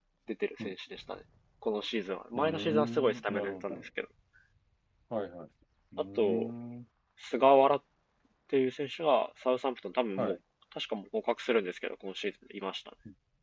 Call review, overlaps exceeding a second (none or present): present